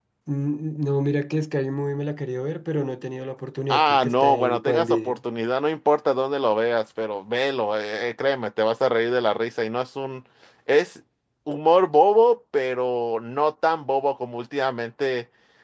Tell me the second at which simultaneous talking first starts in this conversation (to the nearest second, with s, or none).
4 s